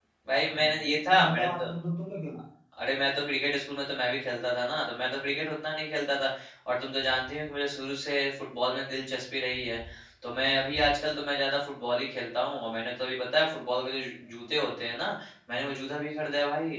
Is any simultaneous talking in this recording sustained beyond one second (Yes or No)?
Yes